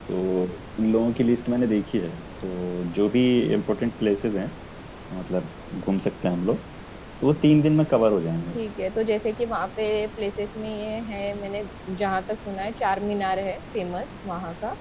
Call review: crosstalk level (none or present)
none